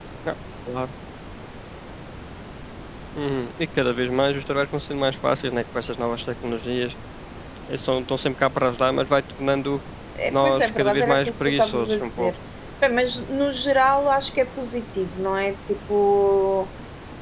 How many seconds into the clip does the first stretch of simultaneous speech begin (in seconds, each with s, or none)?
10.3 s